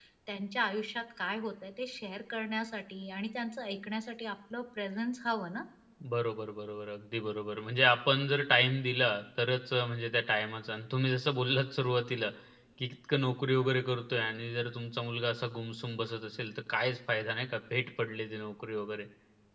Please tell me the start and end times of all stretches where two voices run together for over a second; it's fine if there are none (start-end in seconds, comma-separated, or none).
none